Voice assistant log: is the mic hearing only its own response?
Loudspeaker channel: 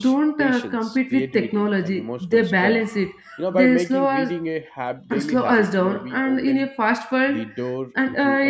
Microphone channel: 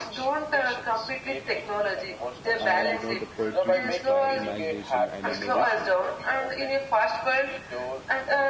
No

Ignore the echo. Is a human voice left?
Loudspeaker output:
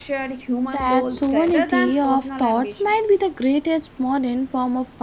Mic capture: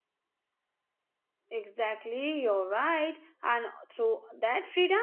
Yes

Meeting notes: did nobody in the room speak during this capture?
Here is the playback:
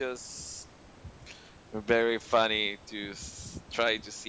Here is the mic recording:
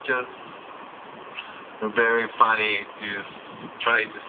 Yes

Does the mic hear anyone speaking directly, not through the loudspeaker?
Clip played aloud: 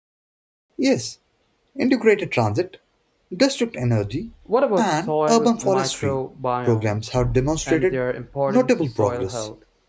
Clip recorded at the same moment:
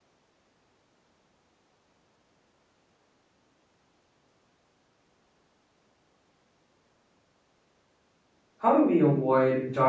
Yes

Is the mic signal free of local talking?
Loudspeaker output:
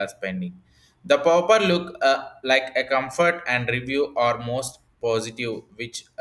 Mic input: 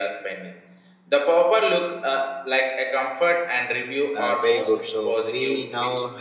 No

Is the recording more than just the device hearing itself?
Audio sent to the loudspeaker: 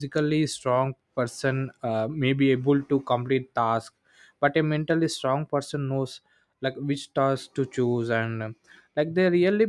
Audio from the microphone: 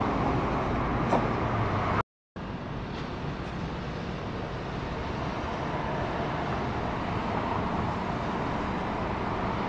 No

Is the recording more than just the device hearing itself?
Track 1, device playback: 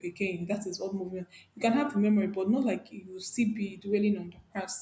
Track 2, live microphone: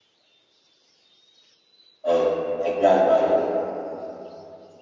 Yes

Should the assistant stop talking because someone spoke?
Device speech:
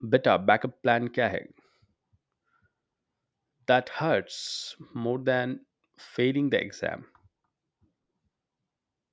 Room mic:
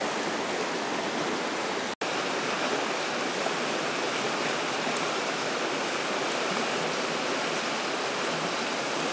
No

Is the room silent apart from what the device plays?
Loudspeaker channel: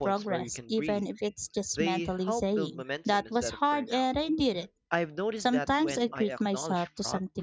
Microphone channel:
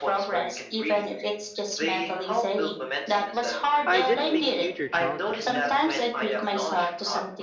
No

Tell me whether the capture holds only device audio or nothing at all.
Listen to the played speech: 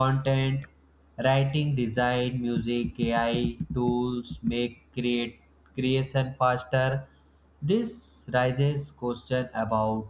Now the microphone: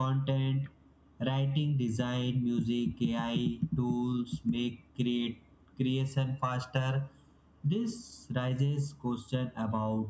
Yes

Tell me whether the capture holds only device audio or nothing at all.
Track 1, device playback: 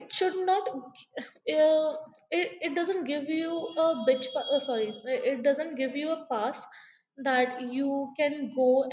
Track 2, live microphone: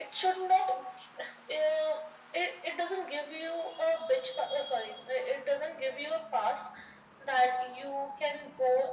Yes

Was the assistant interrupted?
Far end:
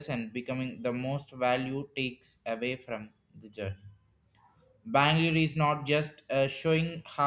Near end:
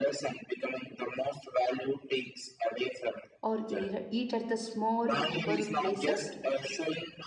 Yes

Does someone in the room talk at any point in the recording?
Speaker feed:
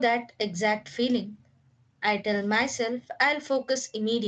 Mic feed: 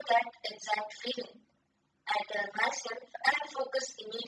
No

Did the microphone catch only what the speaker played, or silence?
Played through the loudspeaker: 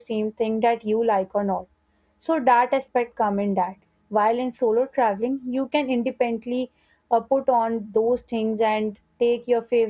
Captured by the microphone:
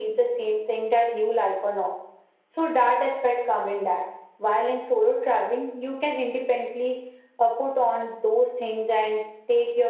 Yes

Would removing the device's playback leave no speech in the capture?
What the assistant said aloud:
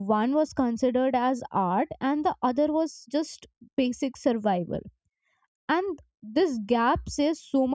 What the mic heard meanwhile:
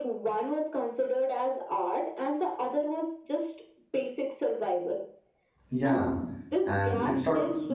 No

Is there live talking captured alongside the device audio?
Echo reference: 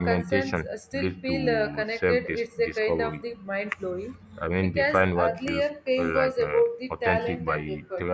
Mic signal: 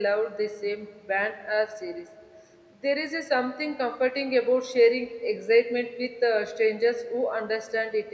Yes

